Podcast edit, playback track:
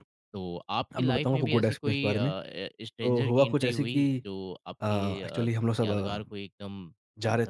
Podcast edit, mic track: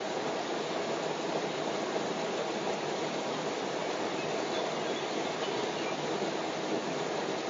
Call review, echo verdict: none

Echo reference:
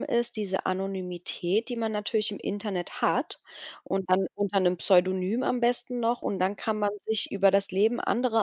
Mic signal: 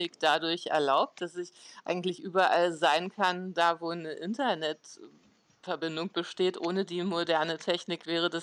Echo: none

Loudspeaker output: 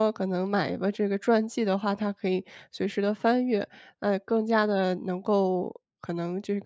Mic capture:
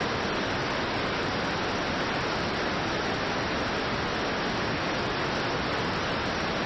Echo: none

